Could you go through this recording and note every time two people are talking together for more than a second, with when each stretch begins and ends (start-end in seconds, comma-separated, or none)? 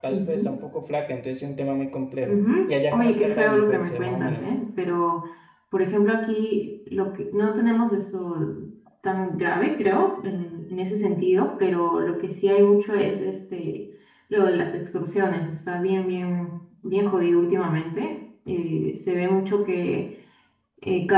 2.2-4.5